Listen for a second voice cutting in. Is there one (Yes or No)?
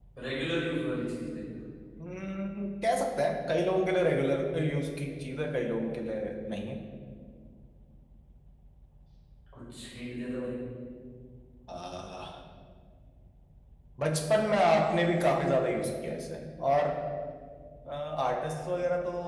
No